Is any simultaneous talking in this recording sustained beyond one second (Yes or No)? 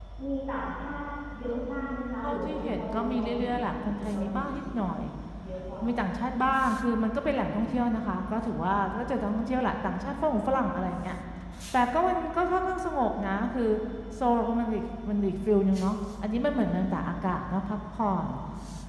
Yes